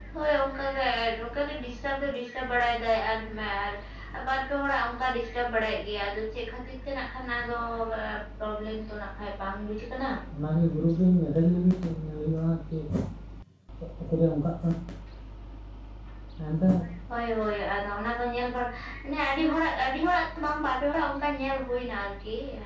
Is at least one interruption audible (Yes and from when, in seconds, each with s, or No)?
No